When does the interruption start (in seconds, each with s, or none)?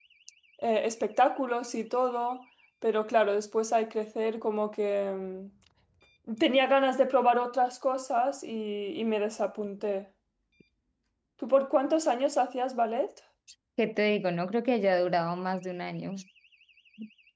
none